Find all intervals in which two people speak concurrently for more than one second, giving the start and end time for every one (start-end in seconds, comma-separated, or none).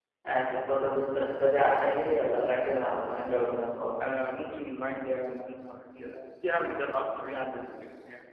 none